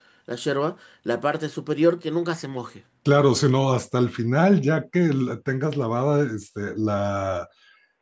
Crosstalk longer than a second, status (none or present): none